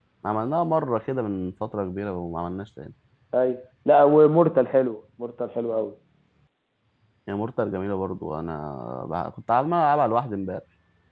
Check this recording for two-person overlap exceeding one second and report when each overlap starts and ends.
none

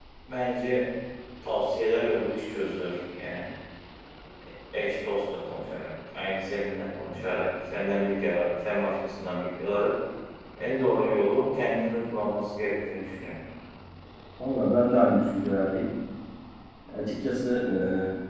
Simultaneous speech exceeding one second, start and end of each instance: none

